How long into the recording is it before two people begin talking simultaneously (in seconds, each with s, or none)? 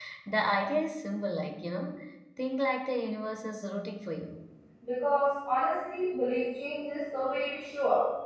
none